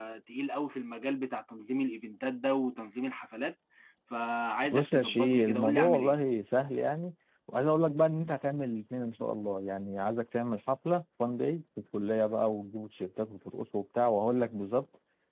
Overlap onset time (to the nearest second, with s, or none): 5 s